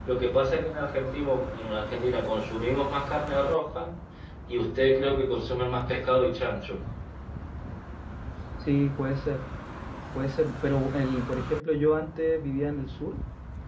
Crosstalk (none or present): none